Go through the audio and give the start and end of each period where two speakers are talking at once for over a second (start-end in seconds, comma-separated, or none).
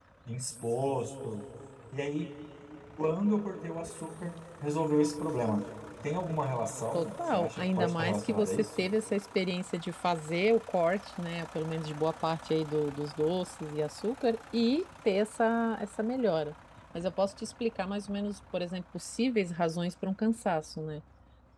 6.9-8.9